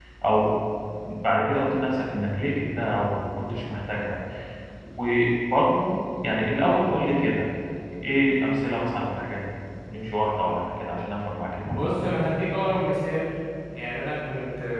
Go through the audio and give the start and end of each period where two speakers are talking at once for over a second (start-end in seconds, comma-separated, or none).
none